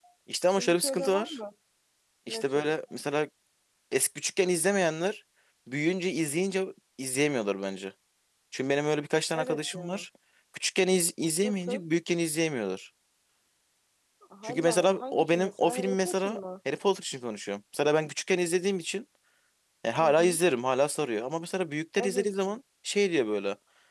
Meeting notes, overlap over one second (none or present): present